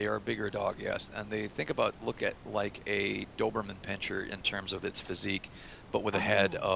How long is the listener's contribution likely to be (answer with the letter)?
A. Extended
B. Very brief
B